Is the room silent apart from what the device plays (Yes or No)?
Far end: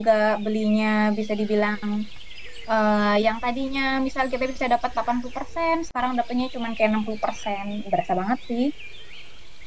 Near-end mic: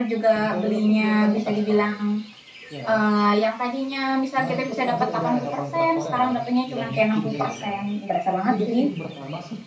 No